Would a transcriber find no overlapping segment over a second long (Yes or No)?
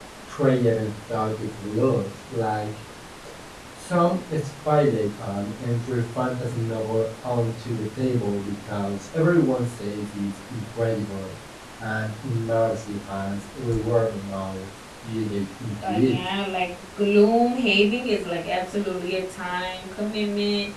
Yes